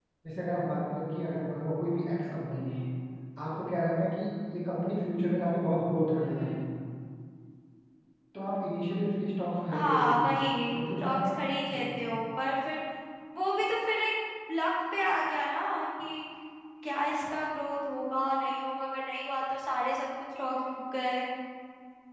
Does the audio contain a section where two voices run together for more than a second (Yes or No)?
No